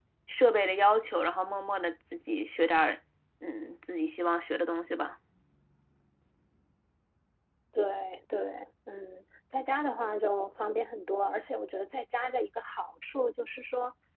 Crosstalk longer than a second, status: none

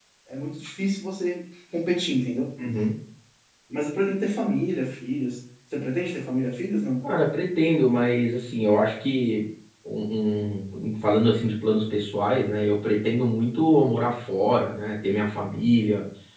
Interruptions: none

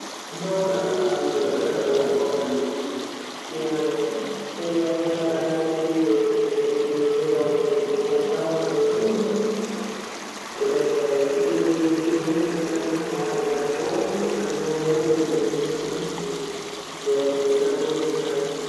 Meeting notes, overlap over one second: present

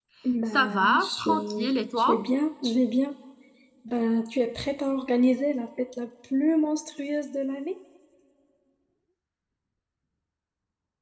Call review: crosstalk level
present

